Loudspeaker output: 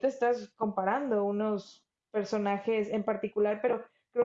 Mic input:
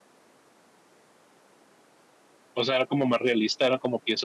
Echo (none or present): none